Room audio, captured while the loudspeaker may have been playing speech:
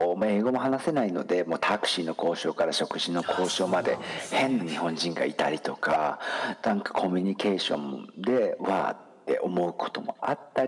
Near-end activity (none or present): present